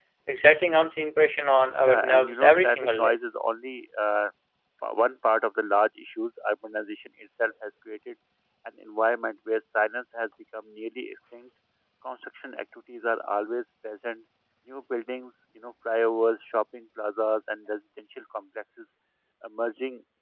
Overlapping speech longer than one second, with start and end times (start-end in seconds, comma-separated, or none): 1.8-3.2